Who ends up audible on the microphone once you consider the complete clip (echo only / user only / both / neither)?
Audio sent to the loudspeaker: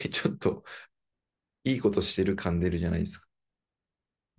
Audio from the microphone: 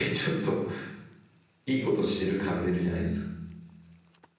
echo only